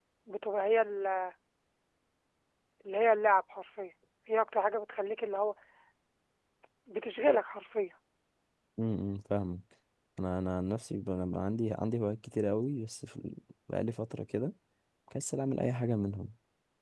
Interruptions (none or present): none